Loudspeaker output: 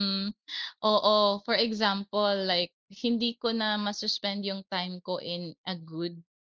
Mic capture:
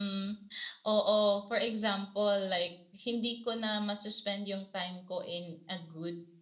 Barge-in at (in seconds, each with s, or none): none